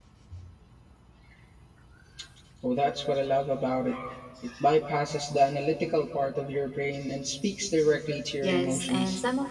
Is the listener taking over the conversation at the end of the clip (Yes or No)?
Yes